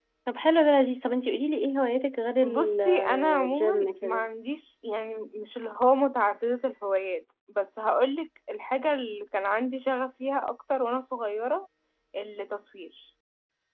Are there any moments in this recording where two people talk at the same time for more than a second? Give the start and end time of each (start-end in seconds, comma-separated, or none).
2.5-4.2